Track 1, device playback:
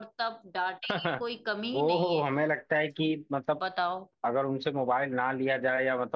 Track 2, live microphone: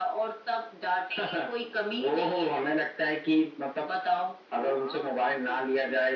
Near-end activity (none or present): present